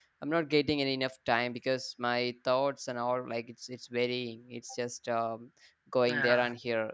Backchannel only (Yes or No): Yes